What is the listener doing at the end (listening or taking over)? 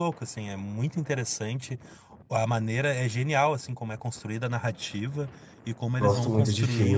taking over